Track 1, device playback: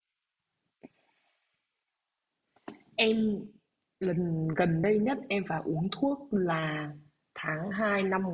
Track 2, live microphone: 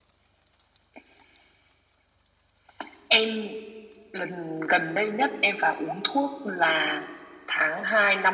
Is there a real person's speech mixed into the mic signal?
No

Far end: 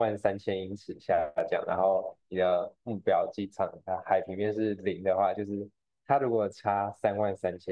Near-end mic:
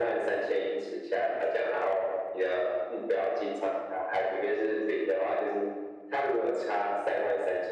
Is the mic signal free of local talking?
Yes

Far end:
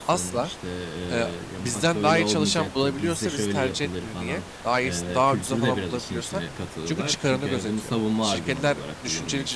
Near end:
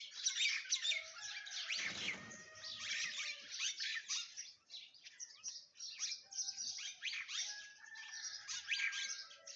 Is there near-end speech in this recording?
No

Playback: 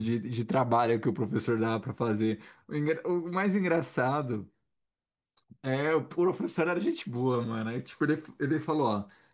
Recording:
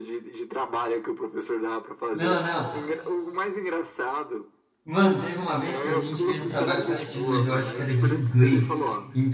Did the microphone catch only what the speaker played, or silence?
No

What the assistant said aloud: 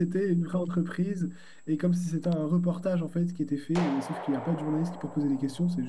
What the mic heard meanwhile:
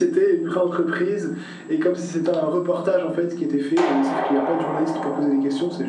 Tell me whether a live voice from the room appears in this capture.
No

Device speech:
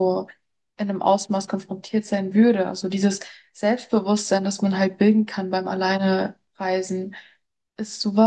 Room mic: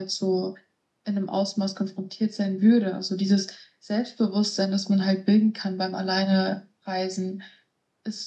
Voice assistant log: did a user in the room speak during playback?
No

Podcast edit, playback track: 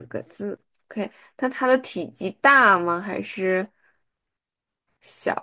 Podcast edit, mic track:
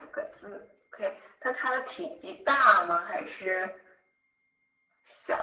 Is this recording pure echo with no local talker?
Yes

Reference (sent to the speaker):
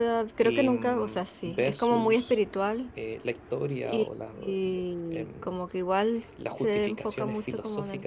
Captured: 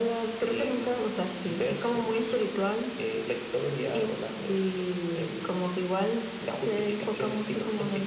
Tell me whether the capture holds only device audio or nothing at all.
Yes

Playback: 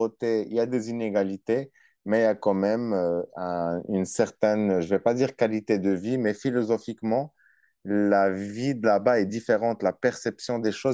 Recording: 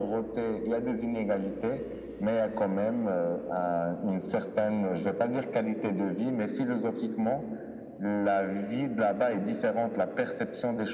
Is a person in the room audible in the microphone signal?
No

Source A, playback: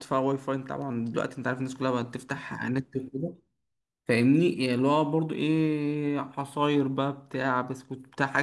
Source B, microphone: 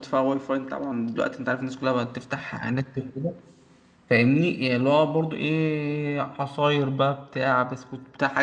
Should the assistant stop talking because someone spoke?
No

